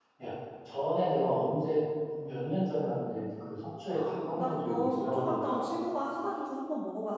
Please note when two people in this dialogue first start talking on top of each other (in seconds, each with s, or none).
3.9 s